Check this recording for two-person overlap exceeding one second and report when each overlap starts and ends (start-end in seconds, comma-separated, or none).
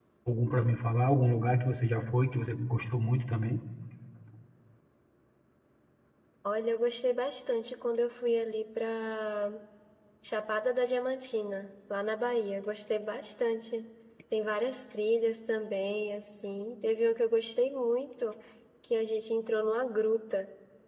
none